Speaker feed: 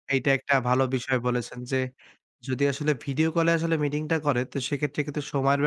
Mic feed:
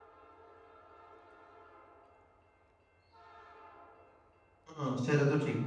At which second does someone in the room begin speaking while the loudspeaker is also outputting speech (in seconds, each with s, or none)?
4.7 s